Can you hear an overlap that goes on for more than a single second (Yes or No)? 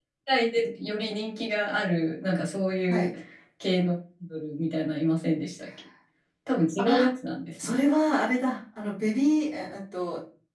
No